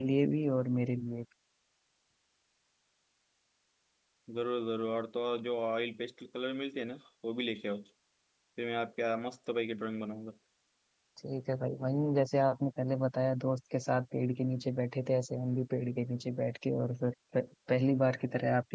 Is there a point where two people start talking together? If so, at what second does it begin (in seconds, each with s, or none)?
none